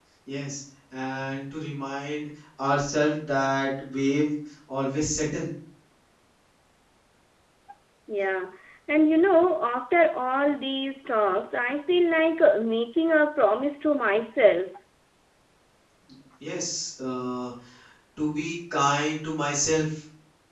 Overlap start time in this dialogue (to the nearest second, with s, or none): none